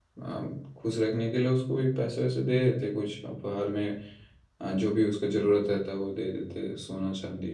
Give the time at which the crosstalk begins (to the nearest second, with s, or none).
none